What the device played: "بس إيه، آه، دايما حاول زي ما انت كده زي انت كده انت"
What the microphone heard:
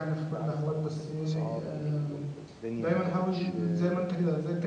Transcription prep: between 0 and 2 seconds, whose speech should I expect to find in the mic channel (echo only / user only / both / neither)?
both